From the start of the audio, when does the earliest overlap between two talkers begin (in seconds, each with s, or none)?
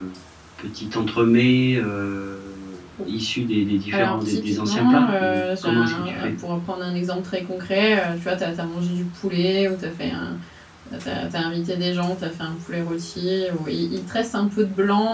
3.9 s